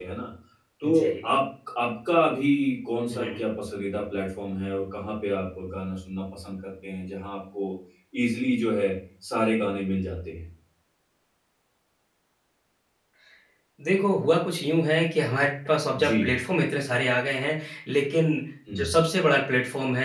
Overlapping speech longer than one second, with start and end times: none

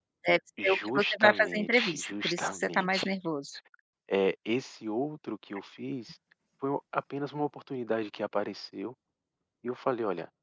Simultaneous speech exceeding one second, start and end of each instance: 0.6-3.1

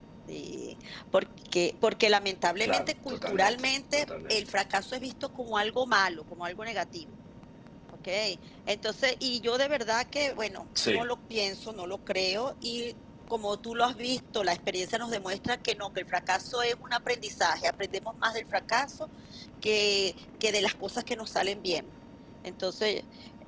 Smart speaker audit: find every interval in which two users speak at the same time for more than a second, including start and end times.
2.6-4.4

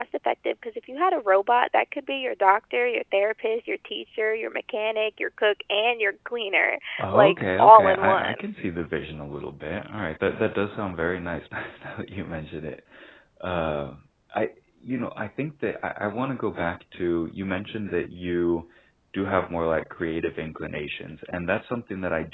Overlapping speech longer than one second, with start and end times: 7.0-8.4

